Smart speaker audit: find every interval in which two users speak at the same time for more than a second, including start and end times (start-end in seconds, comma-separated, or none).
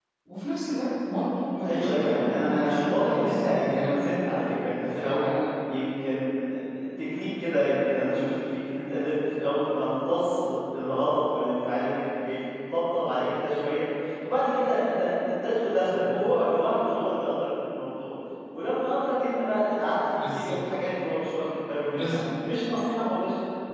1.6-3.9